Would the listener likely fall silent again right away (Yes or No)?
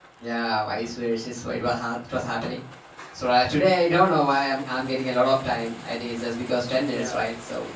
No